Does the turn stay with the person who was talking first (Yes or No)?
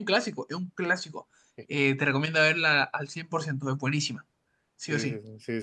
No